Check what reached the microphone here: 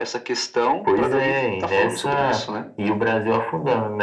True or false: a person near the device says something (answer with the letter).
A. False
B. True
A